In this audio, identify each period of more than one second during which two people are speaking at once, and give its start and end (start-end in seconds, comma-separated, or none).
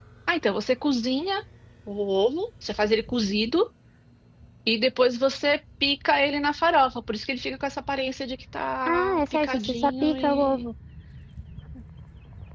8.9-10.7